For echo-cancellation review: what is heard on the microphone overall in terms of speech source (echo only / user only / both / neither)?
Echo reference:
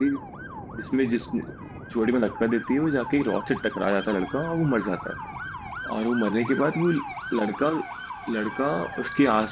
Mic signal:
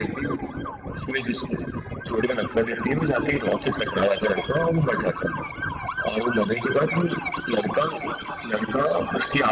echo only